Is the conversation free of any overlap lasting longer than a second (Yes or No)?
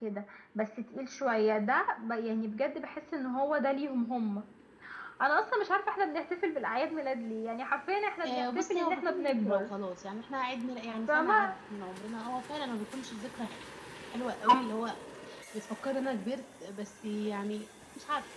No